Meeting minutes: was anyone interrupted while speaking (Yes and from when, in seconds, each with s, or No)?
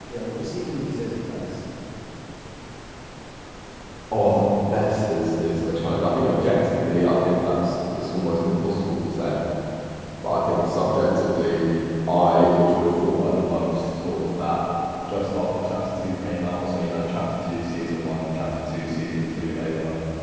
No